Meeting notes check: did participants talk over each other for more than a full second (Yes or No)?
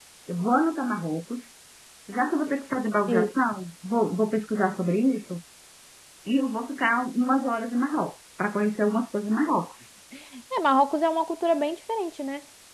No